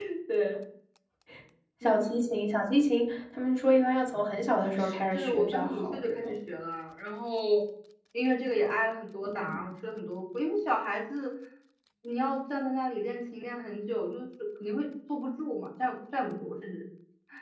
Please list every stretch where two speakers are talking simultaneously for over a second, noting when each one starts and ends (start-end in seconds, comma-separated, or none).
5.1-6.3